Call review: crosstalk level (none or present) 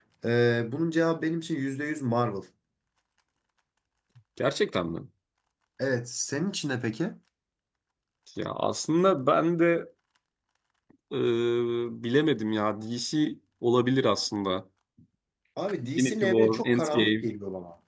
present